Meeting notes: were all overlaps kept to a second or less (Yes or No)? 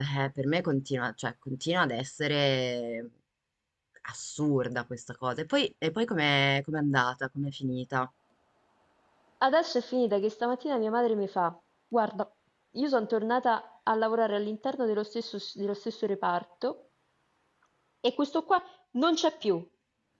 Yes